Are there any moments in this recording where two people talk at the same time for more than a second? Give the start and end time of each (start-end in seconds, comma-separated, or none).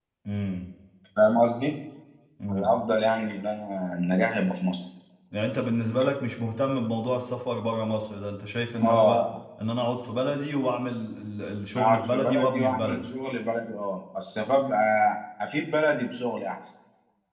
11.8-13.0